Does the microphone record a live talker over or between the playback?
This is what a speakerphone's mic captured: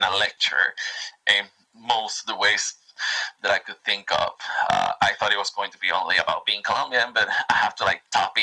No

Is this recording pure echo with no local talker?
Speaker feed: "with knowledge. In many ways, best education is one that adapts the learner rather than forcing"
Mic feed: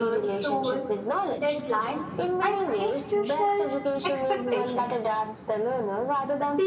No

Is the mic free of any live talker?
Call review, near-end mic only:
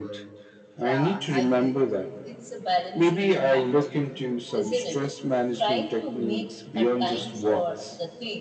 No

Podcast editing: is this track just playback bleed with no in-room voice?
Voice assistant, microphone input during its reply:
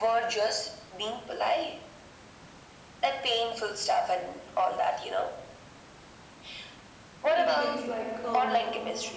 No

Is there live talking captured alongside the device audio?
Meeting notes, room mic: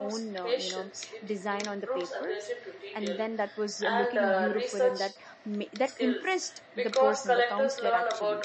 Yes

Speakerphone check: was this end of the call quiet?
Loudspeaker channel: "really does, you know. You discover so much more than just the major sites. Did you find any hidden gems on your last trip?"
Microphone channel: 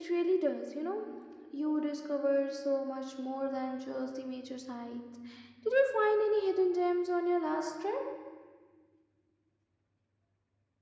Yes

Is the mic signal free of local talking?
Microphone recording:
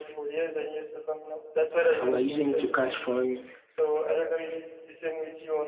No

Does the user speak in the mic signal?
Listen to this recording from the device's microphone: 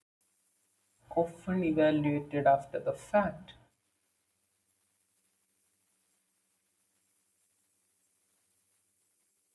Yes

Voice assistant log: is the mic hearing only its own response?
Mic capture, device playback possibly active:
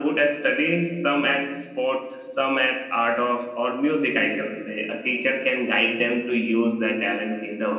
Yes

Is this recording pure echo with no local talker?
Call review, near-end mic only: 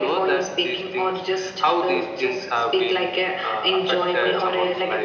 Yes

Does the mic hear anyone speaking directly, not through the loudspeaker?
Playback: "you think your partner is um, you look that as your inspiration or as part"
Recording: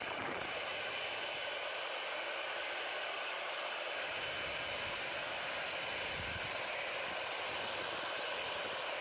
No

